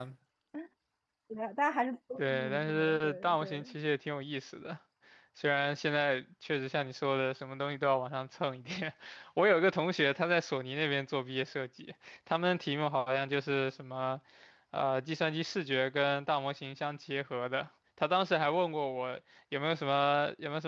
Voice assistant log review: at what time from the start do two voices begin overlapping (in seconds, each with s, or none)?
2.2 s